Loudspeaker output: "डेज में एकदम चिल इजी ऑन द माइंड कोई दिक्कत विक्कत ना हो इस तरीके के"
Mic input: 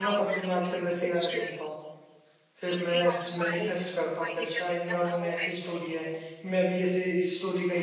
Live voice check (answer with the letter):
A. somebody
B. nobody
A